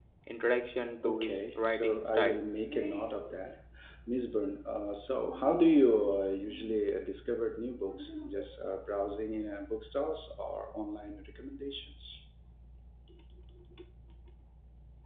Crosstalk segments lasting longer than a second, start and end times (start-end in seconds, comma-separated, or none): 1.0-2.4